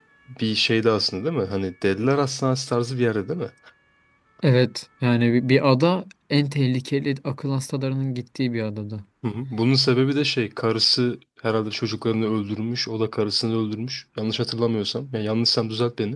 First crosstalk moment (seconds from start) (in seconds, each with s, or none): none